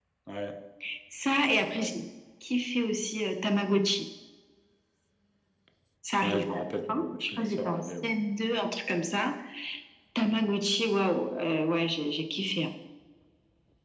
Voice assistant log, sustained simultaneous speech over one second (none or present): present